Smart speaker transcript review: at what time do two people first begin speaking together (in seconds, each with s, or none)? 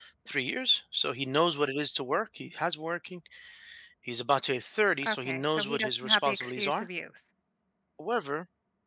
5.0 s